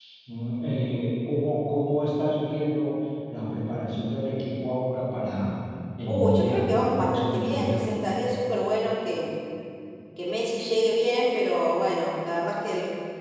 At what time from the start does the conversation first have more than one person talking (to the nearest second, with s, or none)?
6 s